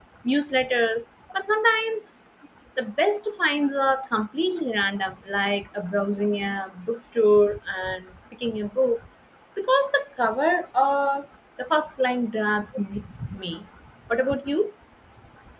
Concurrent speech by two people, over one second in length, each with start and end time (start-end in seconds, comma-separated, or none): none